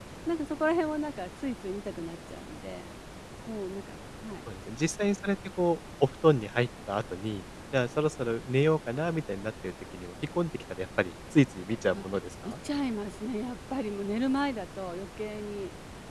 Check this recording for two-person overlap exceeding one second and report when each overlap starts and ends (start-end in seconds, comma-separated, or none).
none